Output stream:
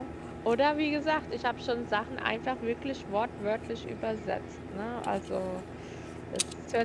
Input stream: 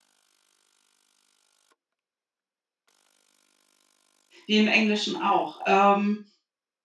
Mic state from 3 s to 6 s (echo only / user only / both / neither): user only